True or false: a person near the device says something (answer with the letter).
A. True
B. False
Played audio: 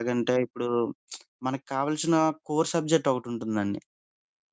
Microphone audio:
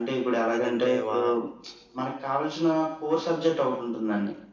A